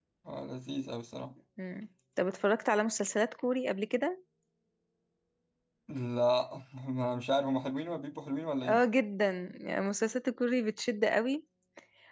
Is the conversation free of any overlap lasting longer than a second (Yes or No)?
Yes